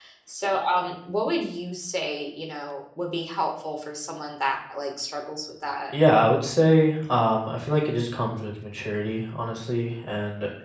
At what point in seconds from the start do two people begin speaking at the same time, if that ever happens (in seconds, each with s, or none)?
none